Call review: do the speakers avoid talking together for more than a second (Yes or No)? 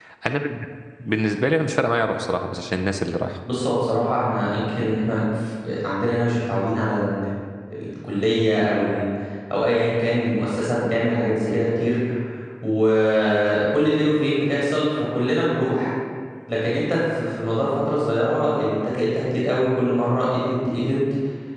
Yes